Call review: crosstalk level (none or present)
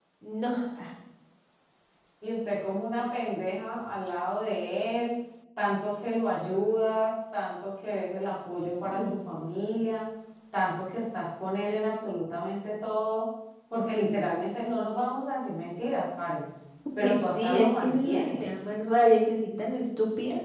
present